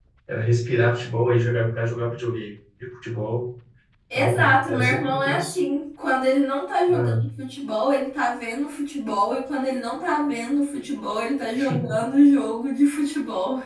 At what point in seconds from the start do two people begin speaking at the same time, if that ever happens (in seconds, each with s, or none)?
4.1 s